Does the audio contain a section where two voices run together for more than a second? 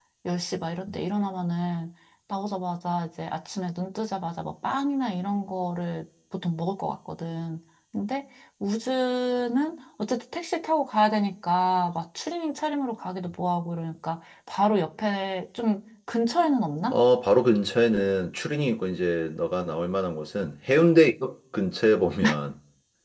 No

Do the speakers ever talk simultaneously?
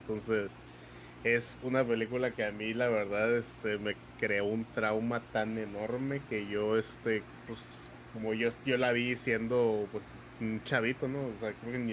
No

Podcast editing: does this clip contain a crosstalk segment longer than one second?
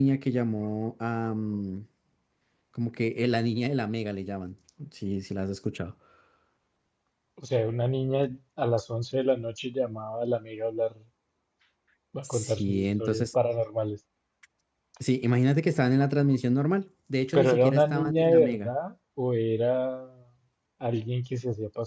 Yes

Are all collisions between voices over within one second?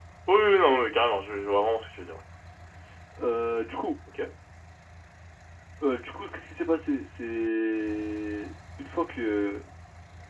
Yes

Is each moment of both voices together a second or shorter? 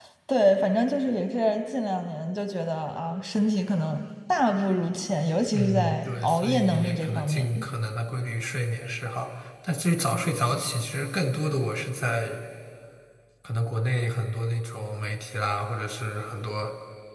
No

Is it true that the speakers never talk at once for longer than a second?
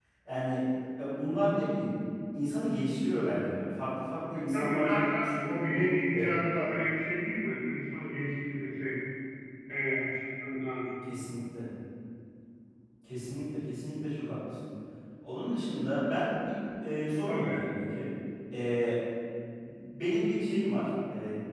No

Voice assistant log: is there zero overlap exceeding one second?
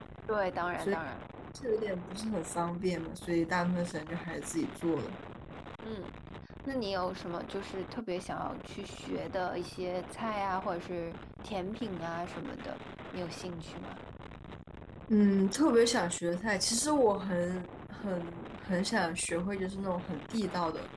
Yes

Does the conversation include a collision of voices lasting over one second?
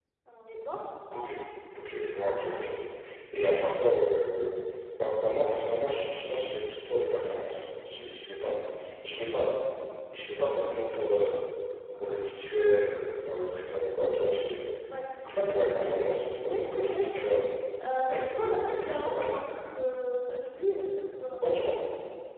Yes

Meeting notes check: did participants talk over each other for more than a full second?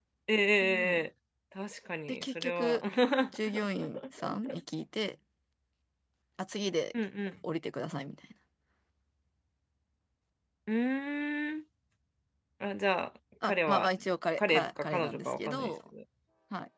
Yes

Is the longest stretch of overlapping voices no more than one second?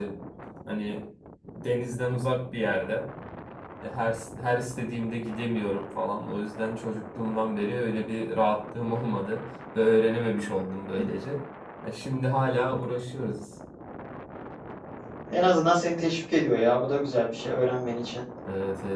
Yes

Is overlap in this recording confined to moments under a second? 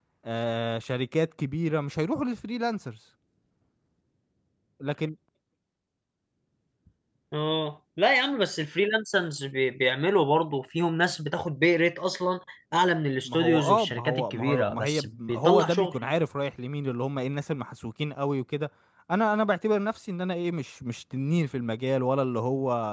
No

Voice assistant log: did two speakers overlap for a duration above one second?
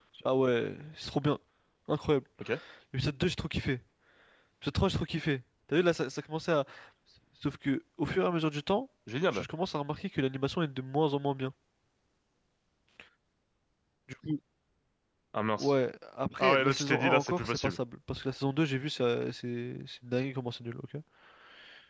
Yes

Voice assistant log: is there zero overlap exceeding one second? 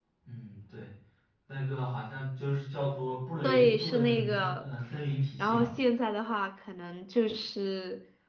No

